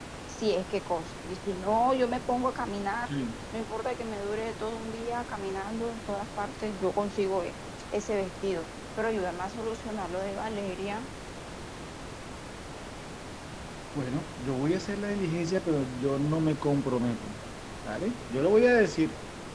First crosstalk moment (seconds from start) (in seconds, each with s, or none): none